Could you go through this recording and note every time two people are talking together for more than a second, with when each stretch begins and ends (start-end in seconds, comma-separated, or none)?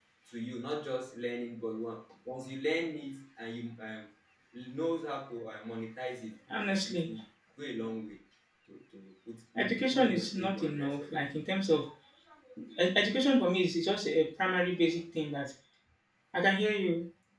9.6-11.2